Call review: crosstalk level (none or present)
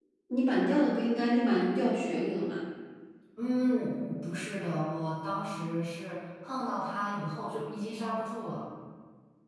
none